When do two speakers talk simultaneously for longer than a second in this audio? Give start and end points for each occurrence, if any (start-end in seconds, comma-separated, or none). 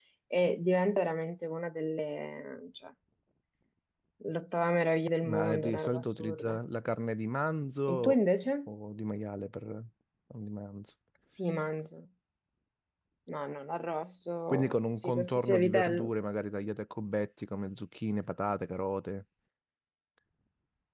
5.2-6.6, 14.5-16.1